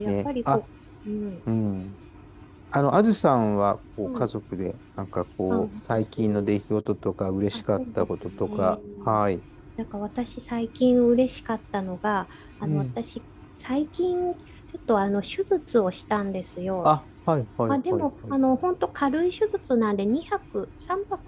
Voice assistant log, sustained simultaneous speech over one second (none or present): present